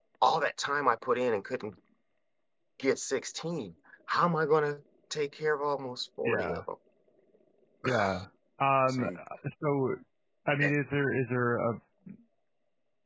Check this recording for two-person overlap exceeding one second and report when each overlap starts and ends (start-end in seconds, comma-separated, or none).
none